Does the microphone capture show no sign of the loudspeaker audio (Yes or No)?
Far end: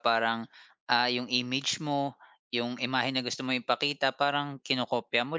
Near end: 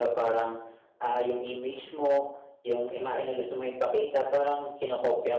No